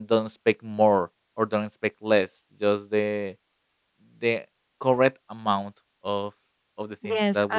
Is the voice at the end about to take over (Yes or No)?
Yes